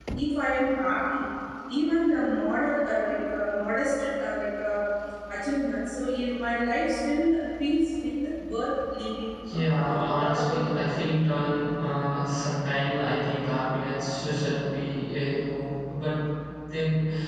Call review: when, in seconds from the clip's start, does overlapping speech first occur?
9 s

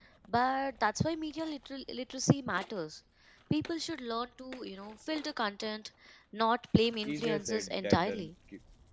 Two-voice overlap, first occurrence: 7 s

